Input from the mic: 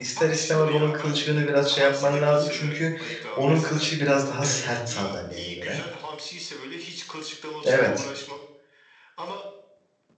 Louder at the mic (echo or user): user